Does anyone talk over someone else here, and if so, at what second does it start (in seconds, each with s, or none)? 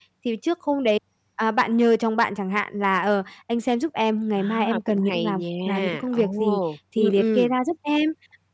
4.4 s